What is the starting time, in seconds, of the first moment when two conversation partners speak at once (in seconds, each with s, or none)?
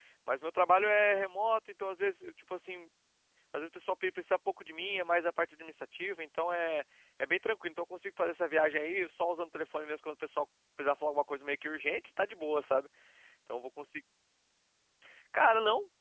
none